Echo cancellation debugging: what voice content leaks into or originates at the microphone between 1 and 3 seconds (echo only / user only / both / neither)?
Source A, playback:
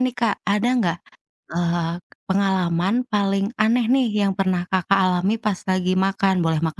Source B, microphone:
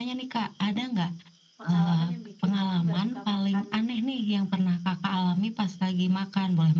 both